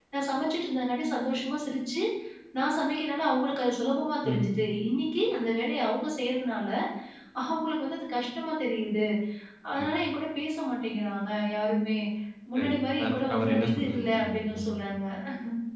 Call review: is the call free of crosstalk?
No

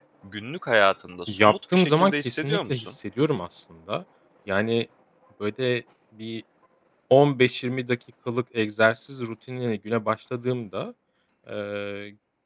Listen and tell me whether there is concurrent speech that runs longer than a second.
Yes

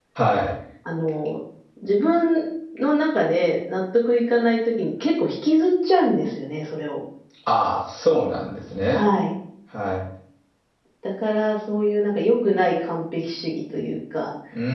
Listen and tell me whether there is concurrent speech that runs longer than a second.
No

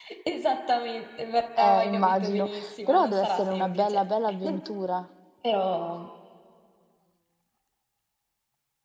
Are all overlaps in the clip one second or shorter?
No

